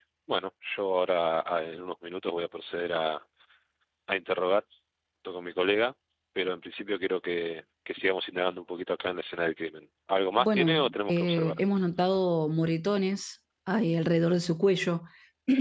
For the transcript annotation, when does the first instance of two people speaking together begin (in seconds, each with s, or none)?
10.4 s